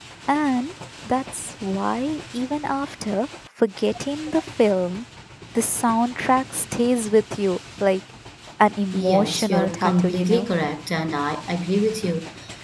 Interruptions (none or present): present